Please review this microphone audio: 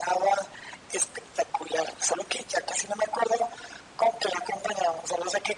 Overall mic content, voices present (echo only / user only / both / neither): echo only